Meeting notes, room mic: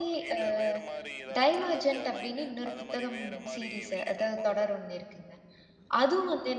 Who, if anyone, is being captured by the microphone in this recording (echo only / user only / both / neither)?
both